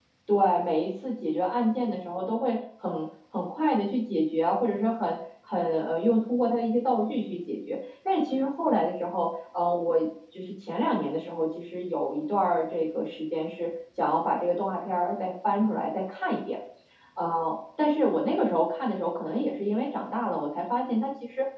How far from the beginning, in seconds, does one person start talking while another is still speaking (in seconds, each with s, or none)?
none